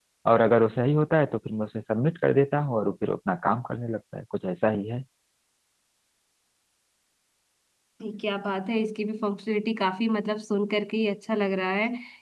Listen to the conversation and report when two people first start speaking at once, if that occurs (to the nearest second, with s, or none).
none